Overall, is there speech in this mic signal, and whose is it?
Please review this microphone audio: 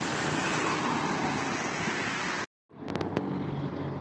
neither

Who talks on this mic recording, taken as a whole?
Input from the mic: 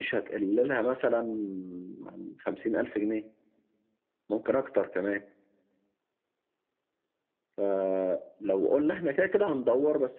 echo only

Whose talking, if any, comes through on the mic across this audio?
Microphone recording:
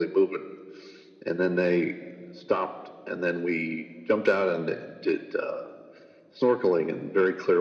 echo only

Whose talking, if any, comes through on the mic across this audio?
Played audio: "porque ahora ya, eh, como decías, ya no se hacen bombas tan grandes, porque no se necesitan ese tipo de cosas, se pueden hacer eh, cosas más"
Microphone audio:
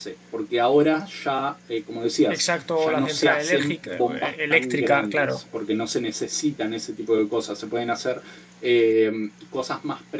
both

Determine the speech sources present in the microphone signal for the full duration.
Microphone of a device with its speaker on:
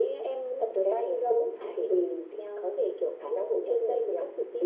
echo only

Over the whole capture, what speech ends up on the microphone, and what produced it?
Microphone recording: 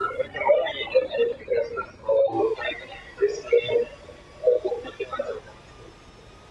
echo only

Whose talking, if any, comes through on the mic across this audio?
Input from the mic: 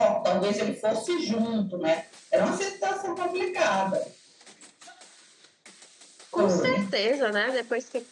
both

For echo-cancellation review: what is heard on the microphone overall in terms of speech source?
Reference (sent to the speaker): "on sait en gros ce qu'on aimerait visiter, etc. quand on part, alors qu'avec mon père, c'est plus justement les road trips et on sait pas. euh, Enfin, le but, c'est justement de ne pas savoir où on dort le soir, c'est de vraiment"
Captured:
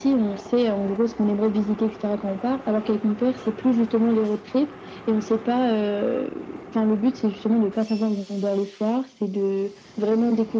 echo only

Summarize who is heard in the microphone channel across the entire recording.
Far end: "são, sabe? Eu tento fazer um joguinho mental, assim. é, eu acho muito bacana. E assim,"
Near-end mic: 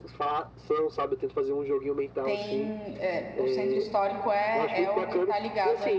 both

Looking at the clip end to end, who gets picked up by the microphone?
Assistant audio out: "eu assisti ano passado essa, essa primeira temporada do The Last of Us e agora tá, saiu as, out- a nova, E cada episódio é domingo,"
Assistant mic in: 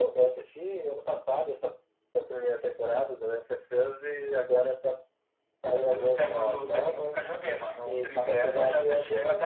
both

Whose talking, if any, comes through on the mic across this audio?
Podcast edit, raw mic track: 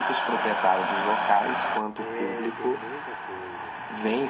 both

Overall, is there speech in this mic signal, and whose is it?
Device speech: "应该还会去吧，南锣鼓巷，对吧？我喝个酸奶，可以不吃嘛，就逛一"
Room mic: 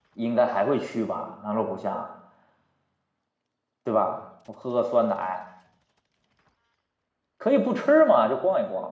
echo only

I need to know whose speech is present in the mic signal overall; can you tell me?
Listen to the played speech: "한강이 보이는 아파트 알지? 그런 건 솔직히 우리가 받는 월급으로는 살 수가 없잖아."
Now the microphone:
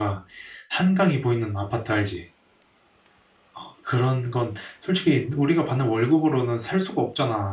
echo only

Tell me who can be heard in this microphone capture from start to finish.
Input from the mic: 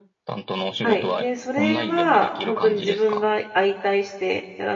both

